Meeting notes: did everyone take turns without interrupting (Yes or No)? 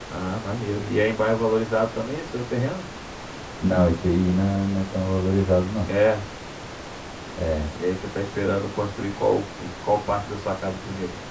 Yes